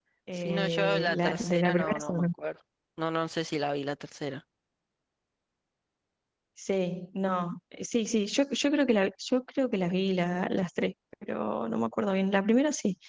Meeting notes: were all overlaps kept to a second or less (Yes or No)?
No